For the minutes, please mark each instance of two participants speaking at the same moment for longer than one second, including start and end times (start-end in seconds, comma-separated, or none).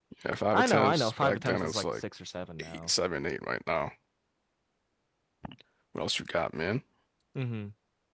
0.5-2.0